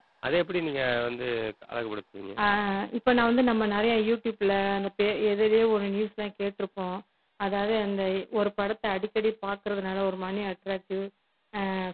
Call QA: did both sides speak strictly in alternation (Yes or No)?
Yes